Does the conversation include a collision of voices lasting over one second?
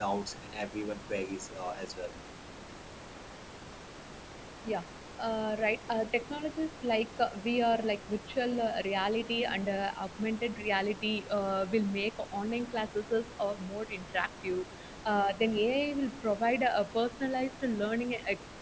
No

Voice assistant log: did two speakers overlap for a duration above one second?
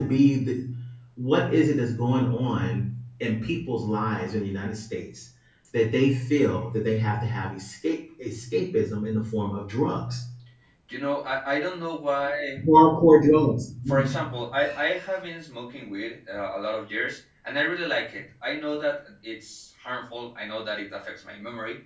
No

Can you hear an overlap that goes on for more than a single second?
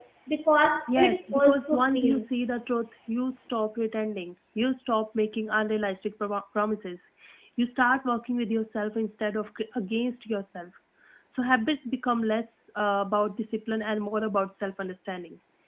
Yes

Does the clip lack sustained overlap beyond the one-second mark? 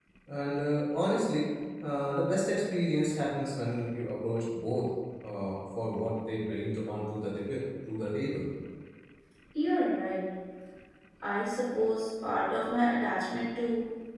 Yes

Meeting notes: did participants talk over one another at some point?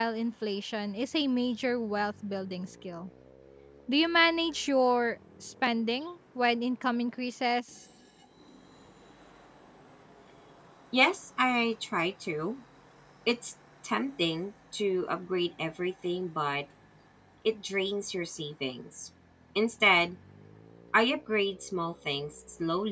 No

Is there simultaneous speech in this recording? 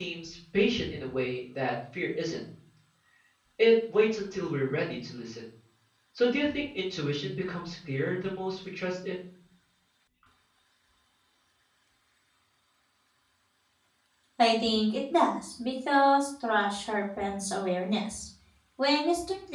No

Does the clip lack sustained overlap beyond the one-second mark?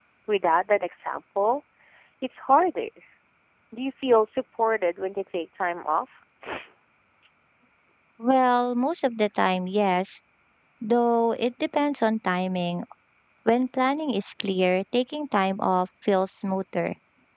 Yes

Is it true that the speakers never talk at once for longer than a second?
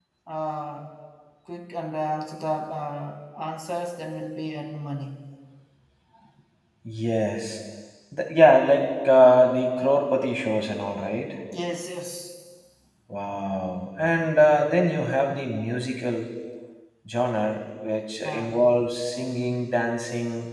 Yes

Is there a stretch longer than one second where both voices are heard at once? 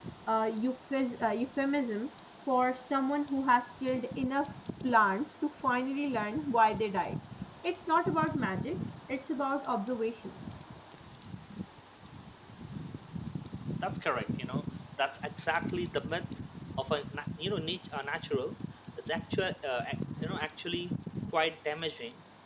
No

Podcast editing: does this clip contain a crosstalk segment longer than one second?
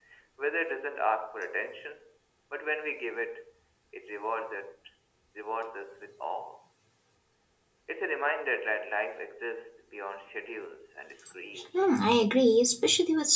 No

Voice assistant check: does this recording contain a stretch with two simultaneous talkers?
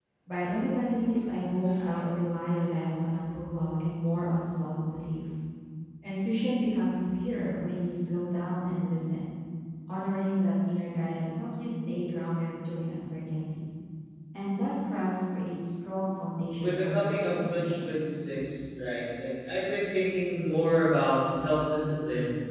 Yes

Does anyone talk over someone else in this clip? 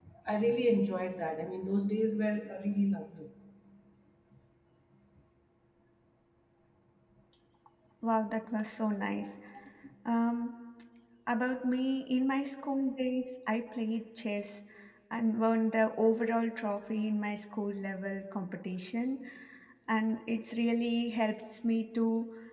No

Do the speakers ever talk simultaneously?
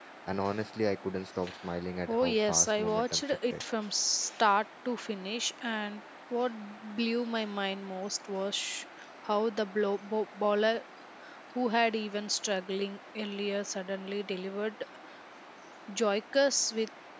Yes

